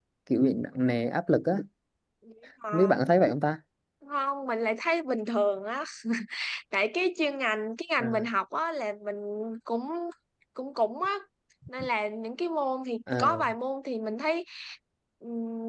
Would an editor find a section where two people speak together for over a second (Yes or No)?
No